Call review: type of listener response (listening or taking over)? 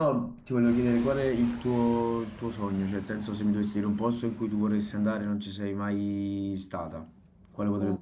taking over